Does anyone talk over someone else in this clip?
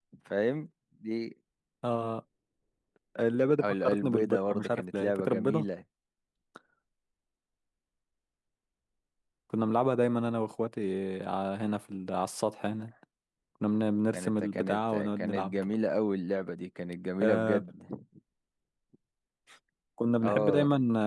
Yes, from 3.6 s

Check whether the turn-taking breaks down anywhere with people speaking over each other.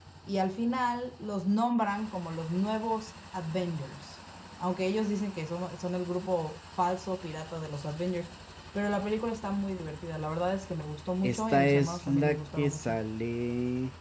Yes, from 11.2 s

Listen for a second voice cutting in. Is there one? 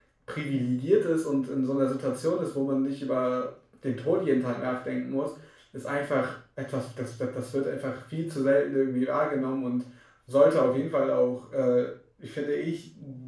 No

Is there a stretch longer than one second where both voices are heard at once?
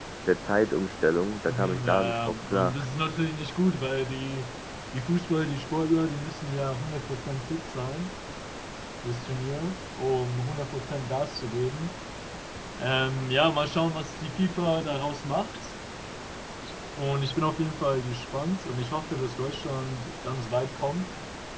Yes, from 1.5 s

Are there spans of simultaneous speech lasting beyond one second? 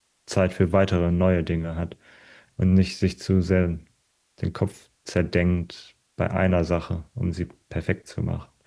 No

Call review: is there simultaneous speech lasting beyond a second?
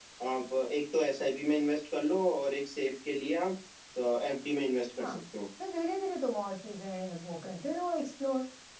No

